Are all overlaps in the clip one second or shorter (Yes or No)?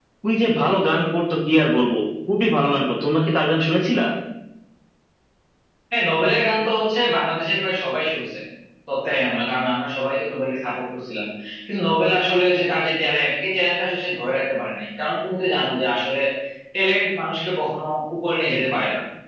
Yes